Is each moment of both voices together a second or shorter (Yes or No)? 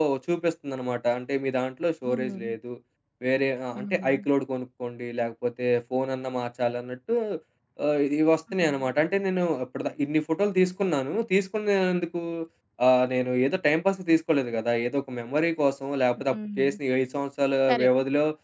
Yes